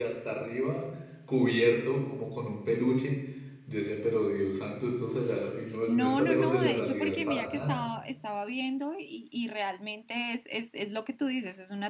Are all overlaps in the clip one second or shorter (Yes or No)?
No